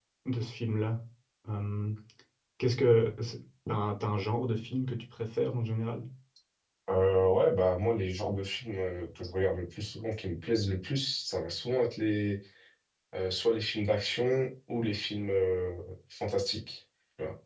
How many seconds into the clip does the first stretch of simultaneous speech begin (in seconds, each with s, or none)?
none